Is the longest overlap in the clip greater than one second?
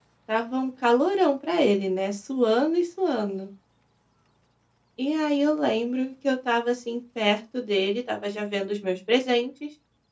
No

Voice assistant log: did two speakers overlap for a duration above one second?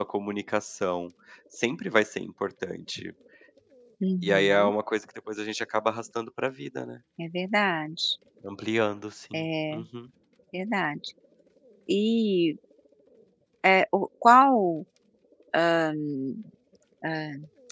No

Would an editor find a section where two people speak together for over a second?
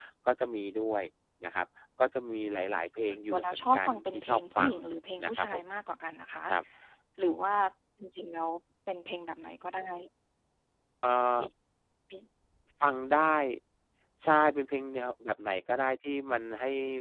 Yes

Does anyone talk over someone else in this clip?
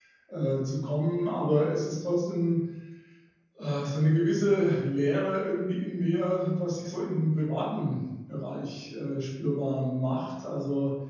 No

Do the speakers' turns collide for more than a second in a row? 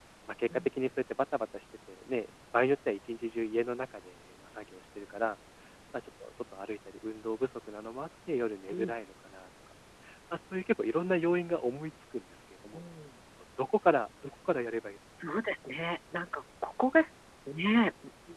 No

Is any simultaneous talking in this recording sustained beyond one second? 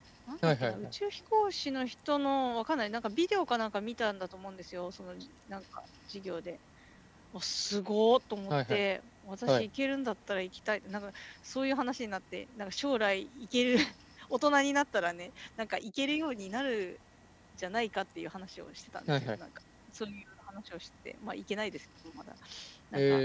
No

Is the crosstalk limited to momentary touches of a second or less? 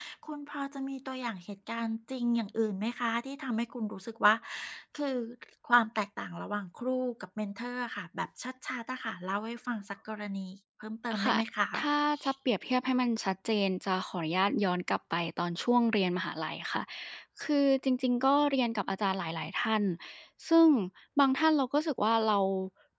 Yes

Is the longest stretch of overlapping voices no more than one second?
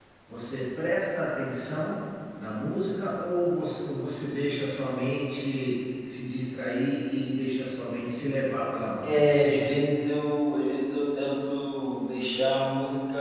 Yes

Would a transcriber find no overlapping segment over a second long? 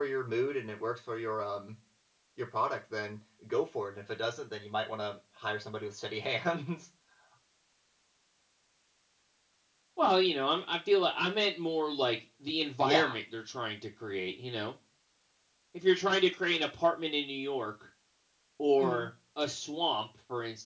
Yes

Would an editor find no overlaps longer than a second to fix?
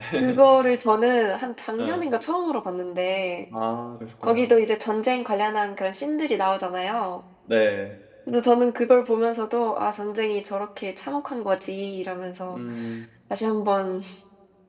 Yes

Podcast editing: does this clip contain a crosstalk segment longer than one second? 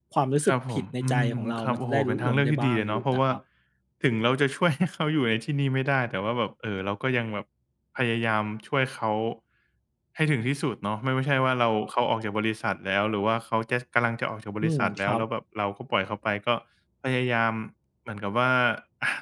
Yes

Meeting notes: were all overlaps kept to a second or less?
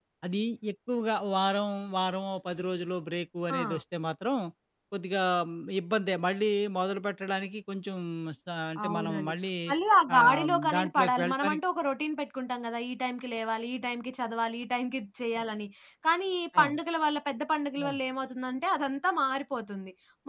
No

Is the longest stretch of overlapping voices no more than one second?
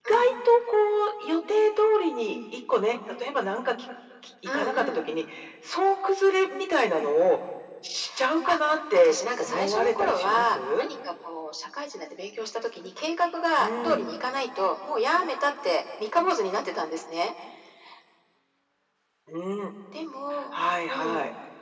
No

